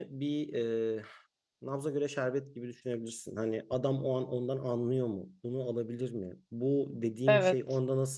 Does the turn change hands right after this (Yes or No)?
No